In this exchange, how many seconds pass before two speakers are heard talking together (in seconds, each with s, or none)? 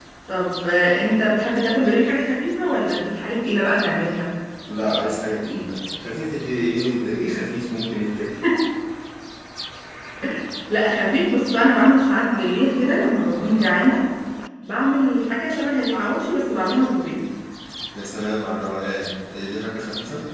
none